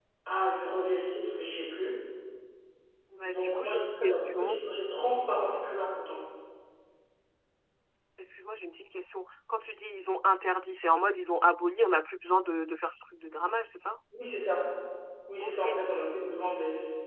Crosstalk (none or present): present